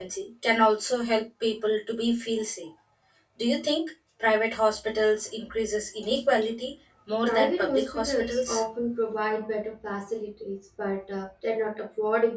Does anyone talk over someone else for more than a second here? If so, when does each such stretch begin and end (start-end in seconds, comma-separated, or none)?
7.2-8.6